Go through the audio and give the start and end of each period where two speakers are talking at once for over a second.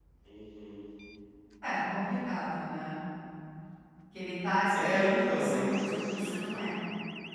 4.8-6.6

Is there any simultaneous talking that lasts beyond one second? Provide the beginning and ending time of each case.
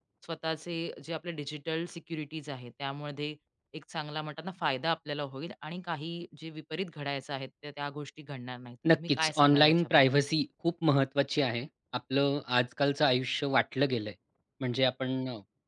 8.9-10.2

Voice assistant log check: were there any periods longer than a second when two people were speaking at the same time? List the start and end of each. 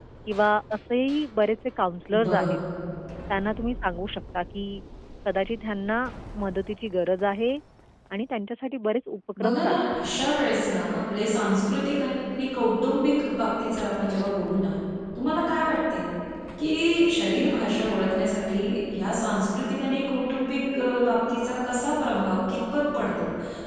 none

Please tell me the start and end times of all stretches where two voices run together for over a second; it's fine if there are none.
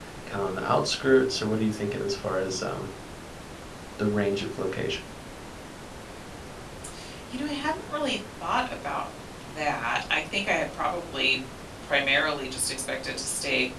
none

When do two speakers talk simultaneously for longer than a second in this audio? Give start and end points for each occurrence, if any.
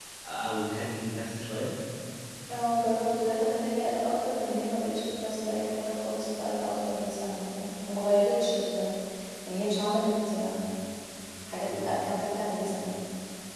none

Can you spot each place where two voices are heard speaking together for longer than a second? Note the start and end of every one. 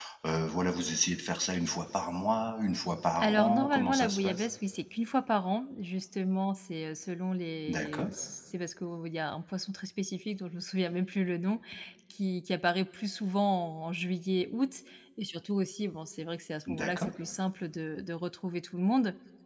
3.2-4.5

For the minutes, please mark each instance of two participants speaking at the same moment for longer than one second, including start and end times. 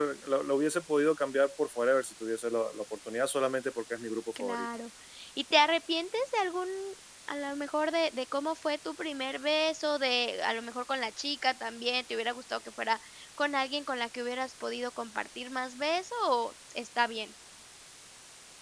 none

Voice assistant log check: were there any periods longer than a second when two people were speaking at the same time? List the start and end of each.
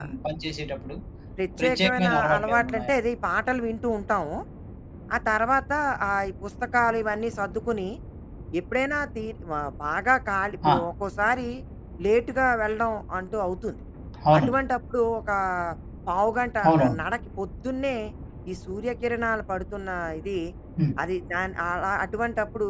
1.6-2.9

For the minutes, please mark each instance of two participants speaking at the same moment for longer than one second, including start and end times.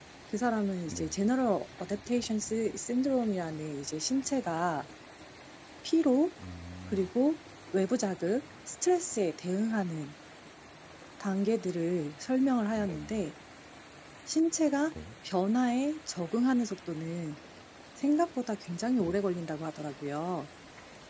none

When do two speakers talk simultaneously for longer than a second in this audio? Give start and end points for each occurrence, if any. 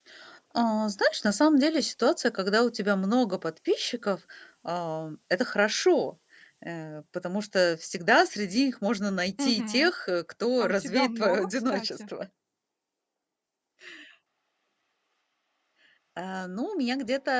10.6-12.0

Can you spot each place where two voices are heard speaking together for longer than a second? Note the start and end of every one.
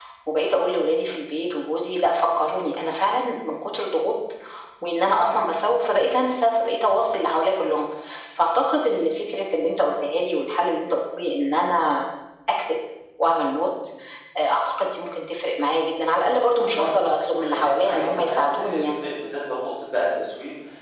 16.6-19.0

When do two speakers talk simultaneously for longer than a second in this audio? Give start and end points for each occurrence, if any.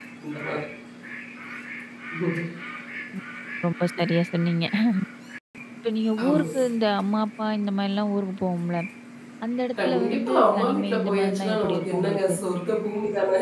9.8-12.3

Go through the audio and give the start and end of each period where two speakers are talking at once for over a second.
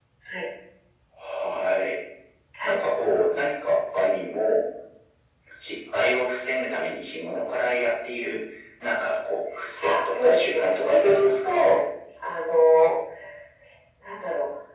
9.8-11.7

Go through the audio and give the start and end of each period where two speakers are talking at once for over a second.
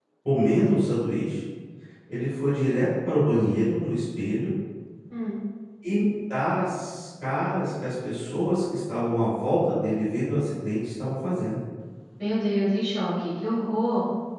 none

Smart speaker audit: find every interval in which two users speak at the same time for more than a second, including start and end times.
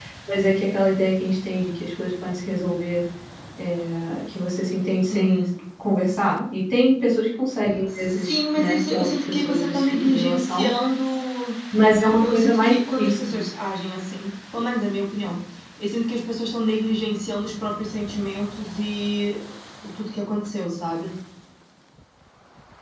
8.0-10.7, 12.2-13.4

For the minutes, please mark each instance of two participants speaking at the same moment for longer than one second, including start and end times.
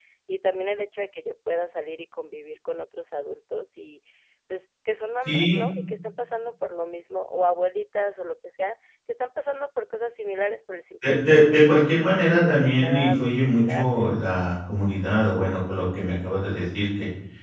11.0-13.9

